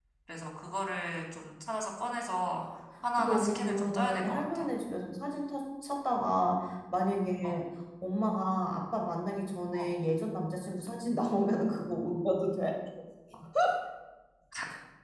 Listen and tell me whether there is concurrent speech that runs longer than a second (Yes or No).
Yes